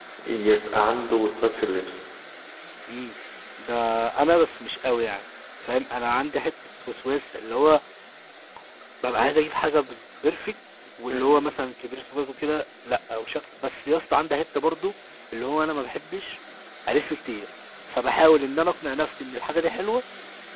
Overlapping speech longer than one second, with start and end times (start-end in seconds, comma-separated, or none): none